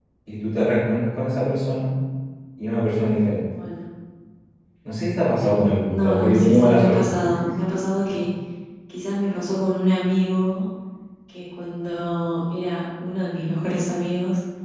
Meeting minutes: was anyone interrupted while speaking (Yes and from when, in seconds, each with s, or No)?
Yes, from 5.4 s